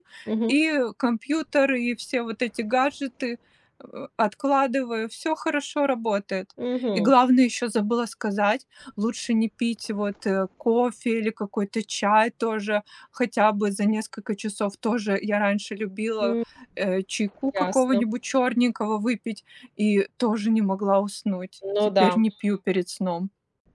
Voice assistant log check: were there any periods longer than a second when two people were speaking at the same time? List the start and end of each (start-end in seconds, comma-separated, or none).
none